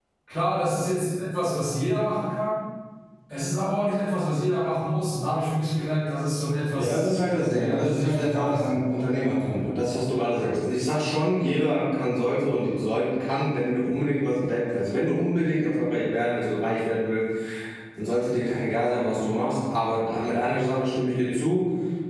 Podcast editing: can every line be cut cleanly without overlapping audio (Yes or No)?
No